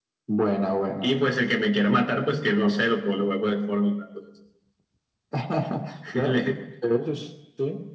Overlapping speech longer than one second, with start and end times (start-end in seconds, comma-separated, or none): none